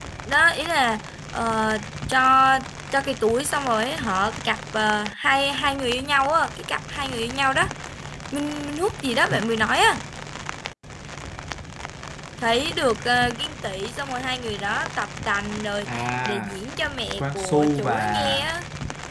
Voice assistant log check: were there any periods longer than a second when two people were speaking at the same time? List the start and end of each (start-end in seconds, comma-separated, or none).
17.2-18.5